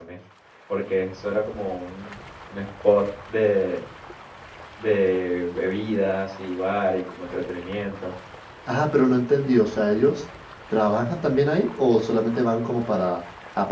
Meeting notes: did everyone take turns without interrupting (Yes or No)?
Yes